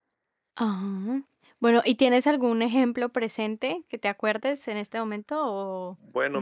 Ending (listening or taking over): taking over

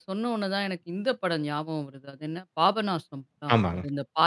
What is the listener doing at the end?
listening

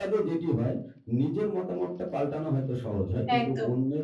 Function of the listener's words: listening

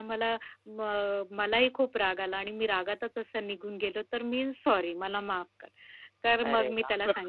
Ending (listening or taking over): listening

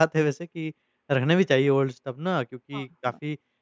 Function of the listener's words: listening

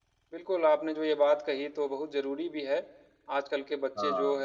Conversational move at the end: listening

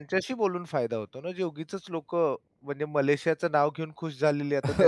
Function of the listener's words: taking over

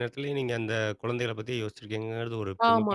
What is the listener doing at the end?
taking over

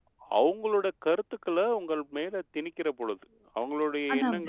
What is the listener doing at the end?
listening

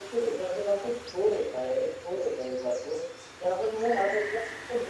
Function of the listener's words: listening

